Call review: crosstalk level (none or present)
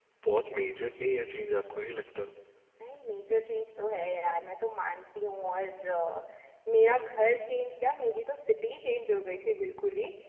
none